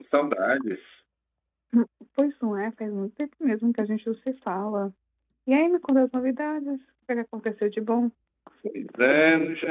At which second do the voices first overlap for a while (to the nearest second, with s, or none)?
none